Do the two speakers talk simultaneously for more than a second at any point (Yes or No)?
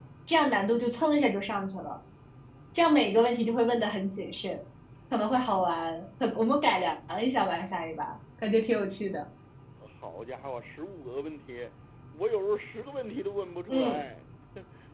No